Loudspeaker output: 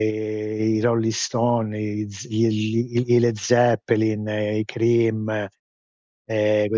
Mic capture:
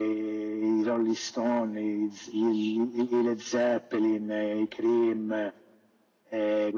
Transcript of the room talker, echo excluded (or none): none